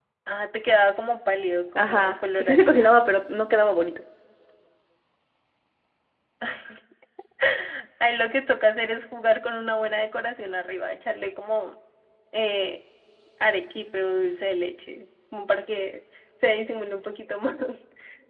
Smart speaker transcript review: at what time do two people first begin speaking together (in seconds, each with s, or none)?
1.8 s